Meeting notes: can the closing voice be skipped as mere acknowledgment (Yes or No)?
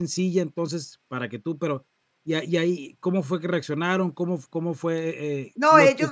No